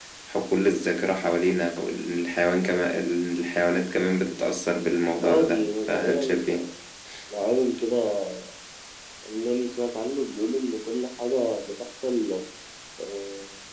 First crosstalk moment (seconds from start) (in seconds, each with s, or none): 5.2 s